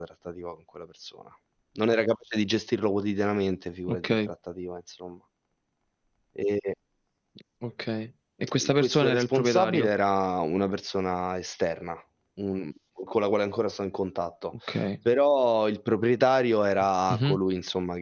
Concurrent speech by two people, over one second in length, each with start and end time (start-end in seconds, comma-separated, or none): 8.6-9.9